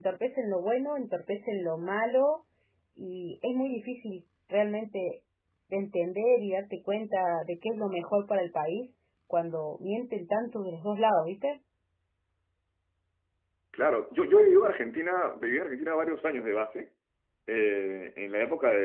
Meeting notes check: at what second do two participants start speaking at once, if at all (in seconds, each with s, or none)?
none